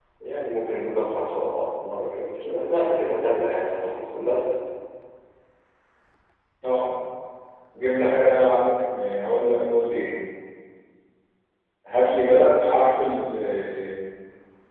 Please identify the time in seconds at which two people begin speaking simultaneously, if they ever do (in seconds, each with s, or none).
none